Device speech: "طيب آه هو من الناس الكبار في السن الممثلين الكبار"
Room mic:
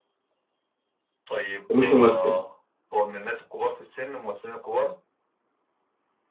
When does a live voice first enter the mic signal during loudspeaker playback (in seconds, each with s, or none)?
1.7 s